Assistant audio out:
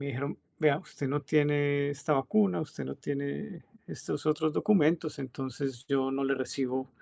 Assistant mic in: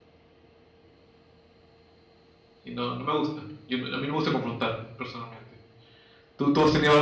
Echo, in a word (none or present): none